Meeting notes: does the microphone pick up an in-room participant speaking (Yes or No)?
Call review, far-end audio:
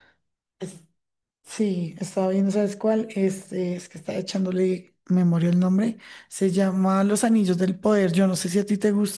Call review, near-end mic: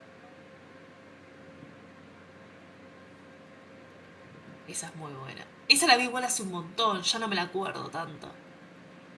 Yes